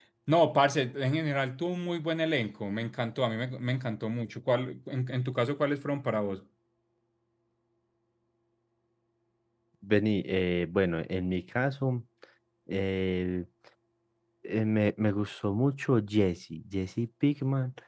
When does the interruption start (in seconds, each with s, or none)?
none